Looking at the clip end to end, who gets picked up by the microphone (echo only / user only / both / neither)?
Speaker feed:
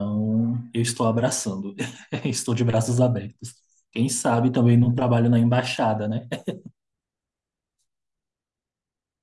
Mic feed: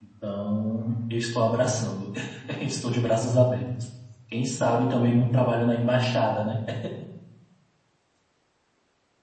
echo only